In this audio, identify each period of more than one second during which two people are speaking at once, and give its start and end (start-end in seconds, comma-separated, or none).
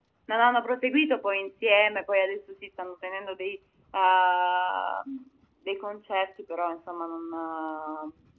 none